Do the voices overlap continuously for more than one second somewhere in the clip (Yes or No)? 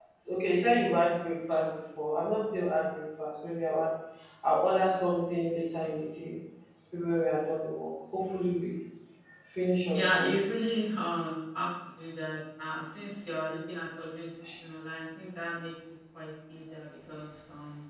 No